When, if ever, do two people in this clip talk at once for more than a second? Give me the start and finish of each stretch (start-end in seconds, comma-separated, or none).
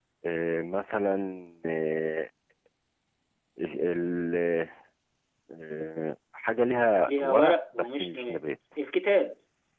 7.1-8.5